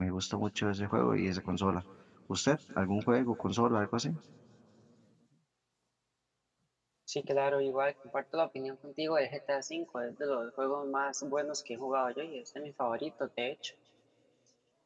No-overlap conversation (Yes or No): Yes